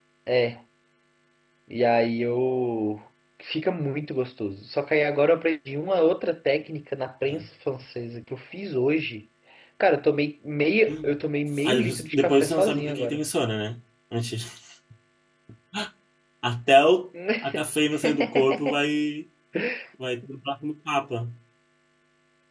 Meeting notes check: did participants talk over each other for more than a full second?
Yes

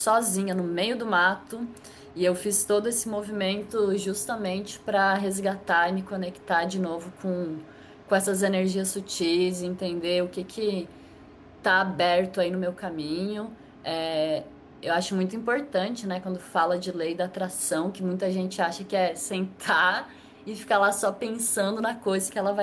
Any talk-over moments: No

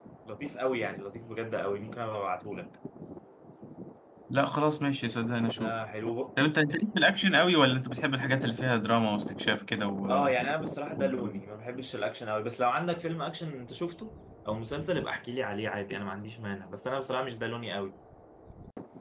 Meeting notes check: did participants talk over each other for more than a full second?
No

